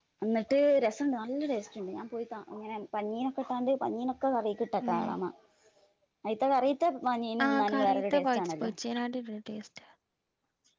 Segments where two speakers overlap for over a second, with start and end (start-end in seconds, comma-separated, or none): 7.5-8.7